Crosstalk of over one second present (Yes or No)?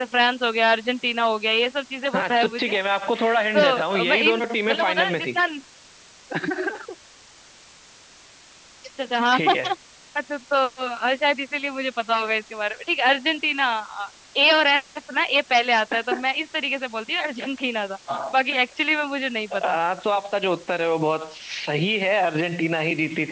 Yes